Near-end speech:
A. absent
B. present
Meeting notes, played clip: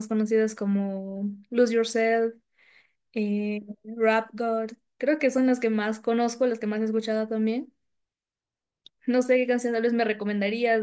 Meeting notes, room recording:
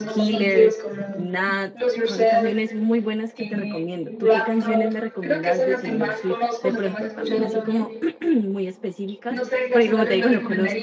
B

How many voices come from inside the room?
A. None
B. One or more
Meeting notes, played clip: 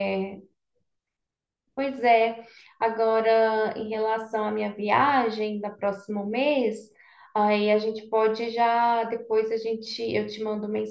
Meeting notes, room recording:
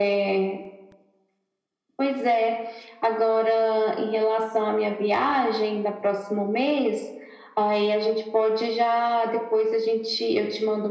A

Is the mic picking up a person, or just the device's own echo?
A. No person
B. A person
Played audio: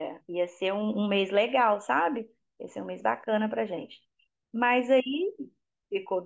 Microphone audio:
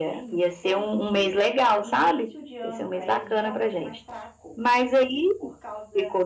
B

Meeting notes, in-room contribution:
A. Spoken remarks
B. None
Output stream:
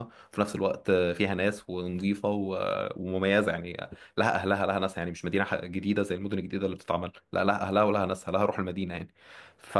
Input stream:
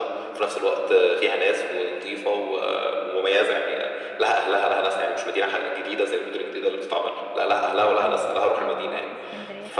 A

